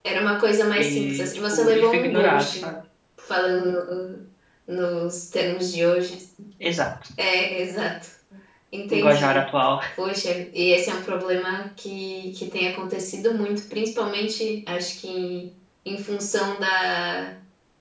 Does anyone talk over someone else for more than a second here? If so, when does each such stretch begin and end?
0.7-2.7

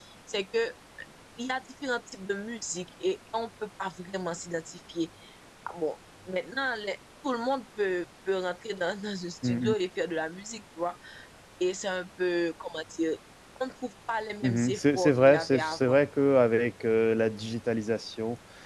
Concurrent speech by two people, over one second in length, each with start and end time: 14.4-16.0

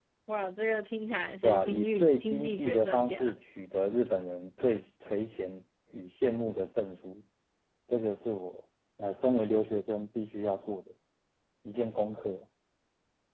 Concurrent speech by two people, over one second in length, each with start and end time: 1.4-3.3

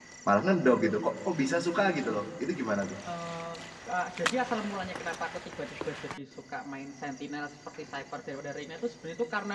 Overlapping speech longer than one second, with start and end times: none

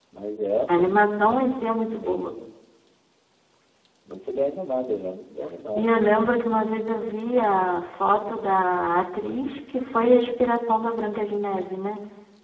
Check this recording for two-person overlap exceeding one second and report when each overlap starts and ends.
none

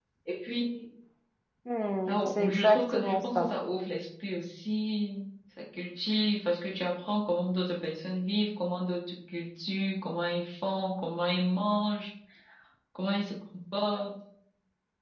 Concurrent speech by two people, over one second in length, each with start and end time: 2.1-3.5

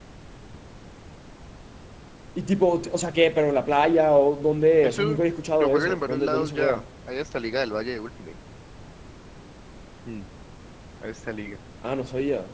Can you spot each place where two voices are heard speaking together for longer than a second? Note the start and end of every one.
5.6-6.8

